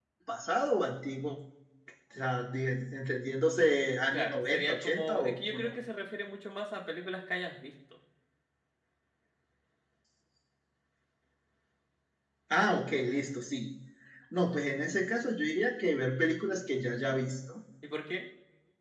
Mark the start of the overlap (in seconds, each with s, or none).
4.1 s